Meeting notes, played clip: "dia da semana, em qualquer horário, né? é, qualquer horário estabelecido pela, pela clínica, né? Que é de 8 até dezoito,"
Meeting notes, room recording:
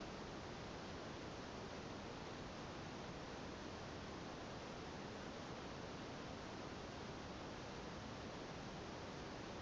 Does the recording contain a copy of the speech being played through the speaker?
No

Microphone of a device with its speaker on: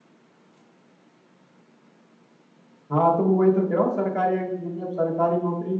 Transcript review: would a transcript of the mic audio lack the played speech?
Yes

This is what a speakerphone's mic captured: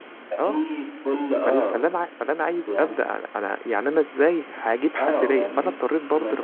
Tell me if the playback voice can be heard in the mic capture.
Yes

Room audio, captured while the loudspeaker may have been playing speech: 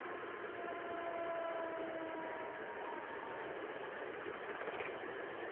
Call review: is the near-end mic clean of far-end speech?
Yes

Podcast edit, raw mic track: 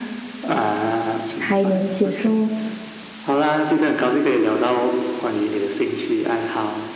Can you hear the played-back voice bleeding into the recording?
Yes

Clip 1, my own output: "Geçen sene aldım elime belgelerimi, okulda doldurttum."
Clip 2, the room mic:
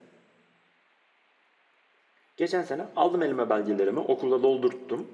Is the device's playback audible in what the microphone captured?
Yes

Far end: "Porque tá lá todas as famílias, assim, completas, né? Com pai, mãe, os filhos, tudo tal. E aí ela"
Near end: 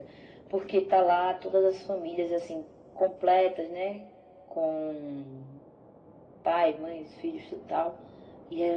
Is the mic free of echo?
No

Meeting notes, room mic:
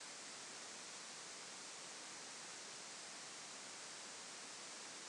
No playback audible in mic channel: Yes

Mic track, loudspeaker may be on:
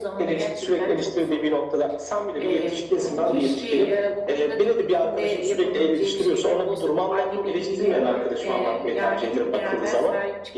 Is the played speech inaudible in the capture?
No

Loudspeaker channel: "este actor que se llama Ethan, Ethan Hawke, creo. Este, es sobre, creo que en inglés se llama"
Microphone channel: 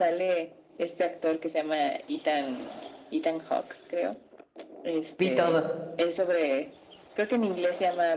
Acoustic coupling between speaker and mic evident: Yes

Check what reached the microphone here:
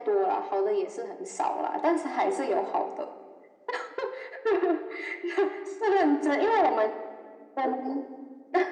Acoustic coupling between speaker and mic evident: Yes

